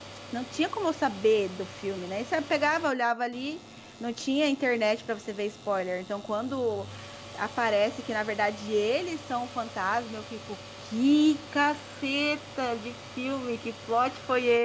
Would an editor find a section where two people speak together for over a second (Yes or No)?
No